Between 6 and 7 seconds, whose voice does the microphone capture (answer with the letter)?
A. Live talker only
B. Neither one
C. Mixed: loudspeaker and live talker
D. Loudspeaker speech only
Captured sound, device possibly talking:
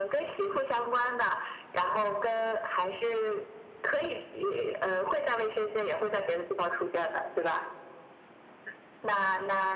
D